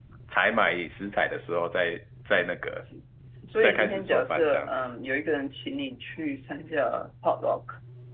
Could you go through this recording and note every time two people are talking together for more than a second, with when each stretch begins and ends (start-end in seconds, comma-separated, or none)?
3.6-4.8